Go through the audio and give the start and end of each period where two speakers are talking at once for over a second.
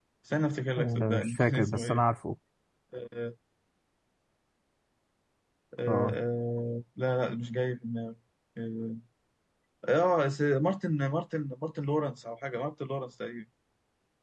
0.8-2.0

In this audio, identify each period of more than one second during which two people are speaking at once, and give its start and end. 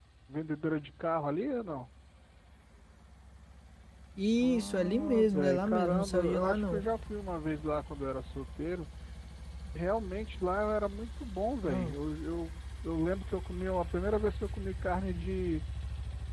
4.4-6.8

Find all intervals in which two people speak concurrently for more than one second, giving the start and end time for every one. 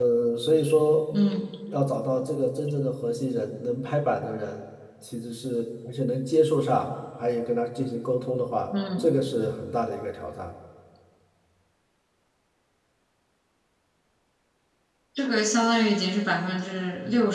none

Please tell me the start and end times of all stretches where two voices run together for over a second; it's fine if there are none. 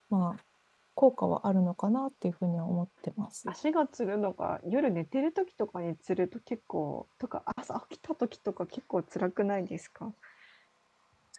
none

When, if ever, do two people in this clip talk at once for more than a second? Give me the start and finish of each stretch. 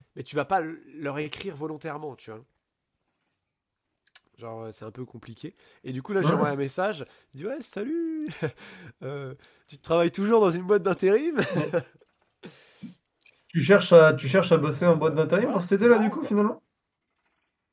14.2-16.3

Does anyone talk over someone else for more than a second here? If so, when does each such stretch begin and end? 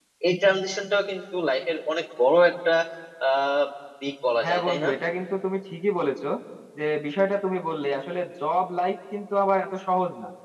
none

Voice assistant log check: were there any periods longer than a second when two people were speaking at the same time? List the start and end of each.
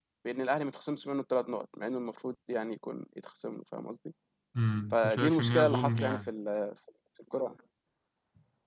4.9-6.3

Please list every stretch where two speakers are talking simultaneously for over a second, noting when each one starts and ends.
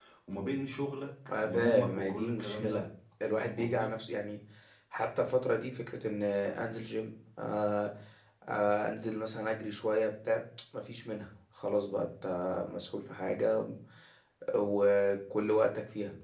1.4-2.8

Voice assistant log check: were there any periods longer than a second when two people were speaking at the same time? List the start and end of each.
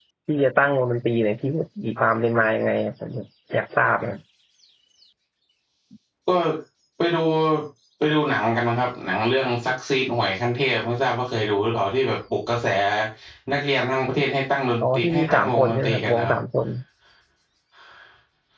14.8-16.4

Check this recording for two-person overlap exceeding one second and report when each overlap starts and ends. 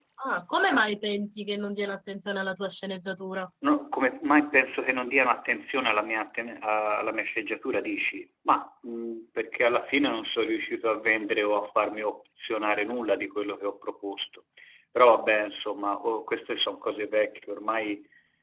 none

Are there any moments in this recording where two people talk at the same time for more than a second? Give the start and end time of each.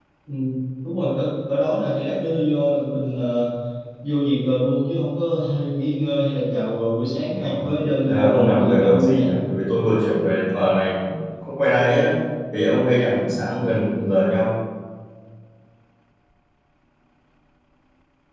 8.1-9.3

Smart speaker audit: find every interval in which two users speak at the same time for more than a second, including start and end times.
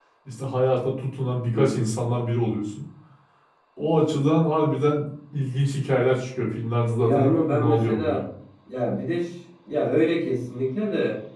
7.0-8.2

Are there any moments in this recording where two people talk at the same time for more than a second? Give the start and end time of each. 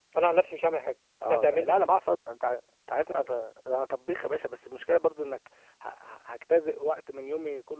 none

